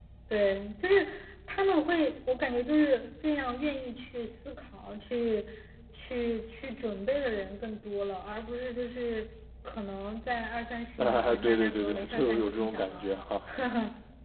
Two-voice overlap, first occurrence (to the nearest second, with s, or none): 11 s